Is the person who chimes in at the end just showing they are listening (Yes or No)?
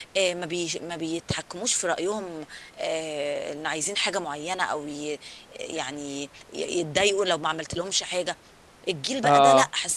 Yes